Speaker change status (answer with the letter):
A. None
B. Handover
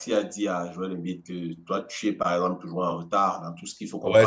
B